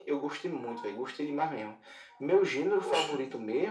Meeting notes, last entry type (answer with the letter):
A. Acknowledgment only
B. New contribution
A